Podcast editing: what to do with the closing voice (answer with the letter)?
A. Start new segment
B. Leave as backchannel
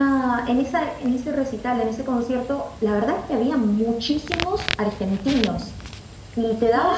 B